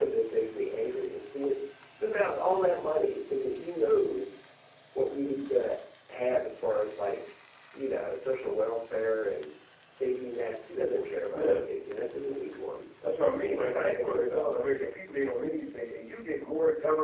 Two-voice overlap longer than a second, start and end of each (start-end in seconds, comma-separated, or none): 13.5-14.8